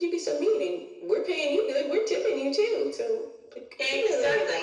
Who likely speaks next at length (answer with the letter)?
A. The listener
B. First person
A